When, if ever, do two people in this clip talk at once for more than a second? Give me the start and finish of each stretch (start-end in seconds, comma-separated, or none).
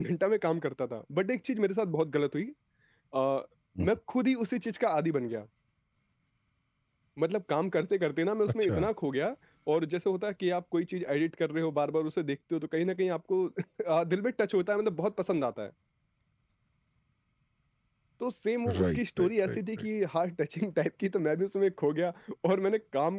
18.7-19.9